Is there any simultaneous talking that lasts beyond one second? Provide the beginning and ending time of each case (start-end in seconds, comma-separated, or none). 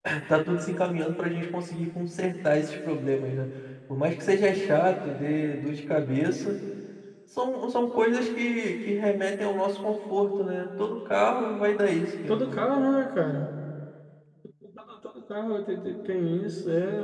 none